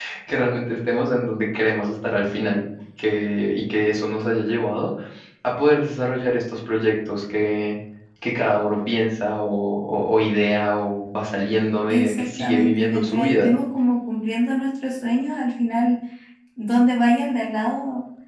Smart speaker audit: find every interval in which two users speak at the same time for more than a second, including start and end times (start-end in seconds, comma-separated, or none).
11.9-13.5